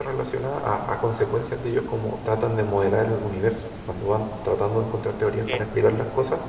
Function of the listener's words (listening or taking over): listening